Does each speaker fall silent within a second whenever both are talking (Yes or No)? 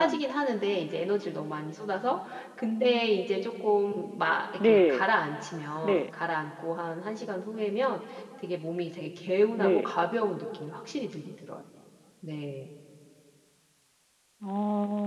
Yes